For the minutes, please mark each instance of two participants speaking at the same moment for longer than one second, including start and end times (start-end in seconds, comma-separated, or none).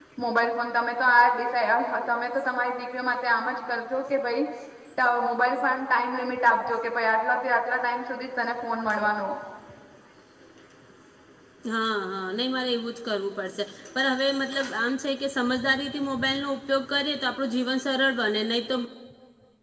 none